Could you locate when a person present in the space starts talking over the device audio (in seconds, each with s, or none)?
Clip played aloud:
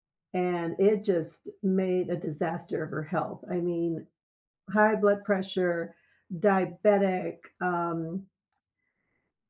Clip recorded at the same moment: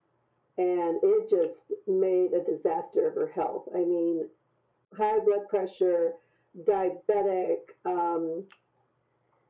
none